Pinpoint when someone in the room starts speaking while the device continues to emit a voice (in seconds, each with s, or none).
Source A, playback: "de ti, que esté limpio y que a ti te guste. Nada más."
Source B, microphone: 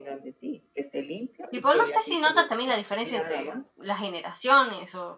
1.5 s